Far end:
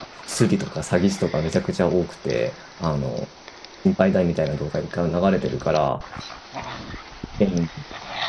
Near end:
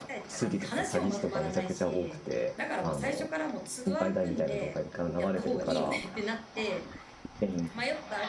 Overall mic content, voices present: both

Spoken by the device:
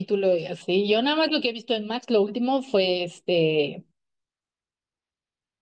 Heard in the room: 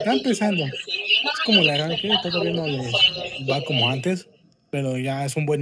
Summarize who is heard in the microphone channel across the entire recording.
both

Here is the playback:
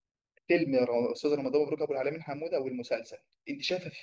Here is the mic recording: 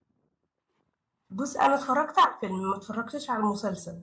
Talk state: user only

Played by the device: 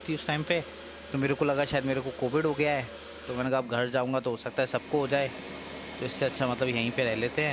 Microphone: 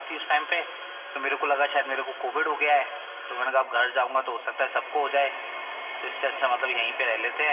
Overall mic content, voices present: echo only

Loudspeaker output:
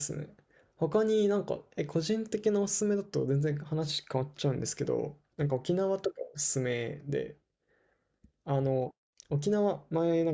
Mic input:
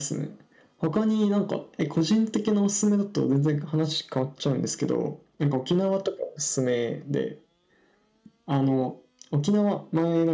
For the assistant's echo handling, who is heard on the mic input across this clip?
echo only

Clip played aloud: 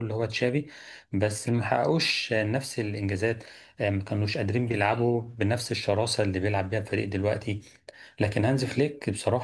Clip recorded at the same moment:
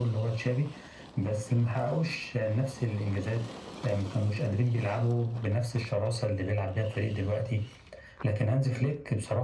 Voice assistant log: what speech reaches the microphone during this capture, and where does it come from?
echo only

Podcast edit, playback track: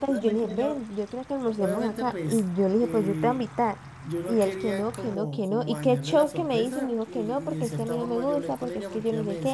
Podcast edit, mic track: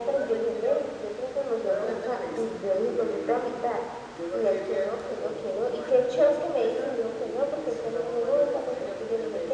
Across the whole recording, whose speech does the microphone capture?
echo only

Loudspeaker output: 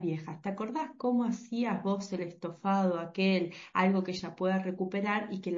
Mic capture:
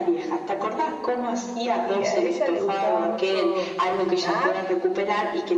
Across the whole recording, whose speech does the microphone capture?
both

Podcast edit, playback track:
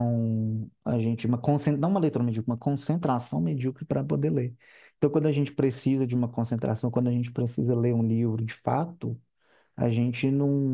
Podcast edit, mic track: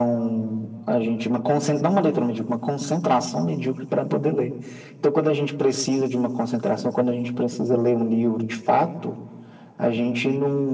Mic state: echo only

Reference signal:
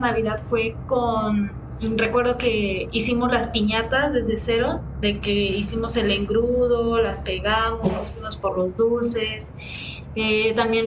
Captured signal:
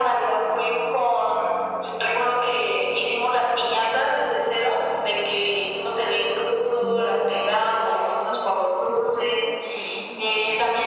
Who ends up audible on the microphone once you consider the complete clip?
both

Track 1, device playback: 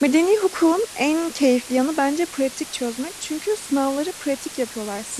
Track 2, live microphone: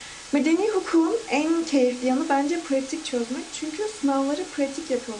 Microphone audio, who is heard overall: echo only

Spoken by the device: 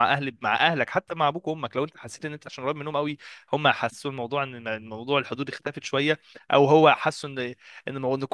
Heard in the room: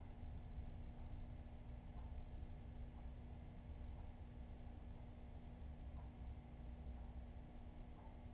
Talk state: neither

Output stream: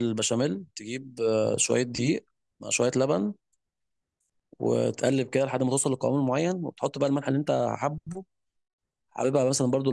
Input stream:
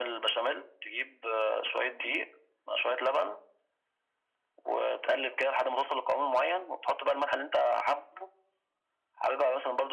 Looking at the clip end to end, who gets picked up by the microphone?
echo only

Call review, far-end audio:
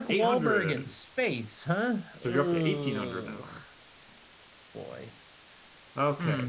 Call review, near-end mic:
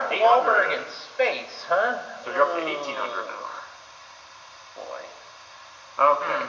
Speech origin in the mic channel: echo only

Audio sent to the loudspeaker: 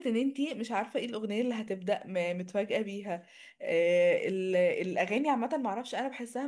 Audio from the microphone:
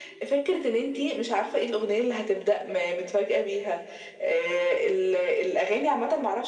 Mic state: echo only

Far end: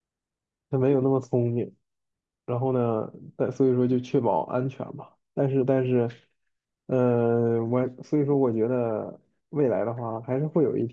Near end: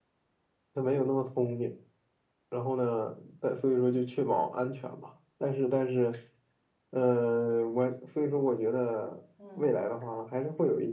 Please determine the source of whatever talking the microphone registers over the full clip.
both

